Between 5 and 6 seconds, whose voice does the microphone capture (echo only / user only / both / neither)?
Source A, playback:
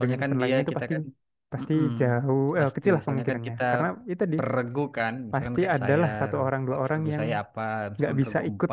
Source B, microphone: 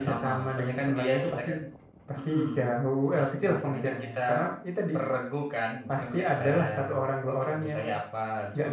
echo only